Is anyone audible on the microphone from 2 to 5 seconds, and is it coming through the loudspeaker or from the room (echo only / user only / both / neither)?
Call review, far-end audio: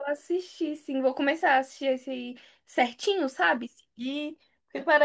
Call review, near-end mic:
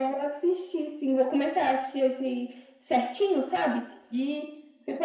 echo only